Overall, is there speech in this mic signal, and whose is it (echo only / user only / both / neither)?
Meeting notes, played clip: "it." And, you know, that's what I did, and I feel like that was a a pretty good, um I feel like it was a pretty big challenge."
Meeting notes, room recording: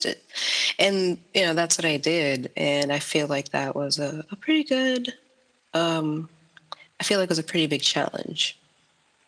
echo only